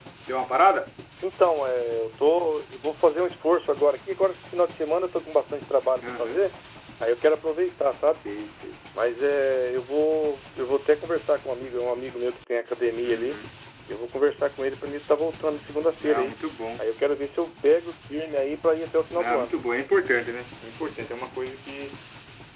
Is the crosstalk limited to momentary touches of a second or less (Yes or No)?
Yes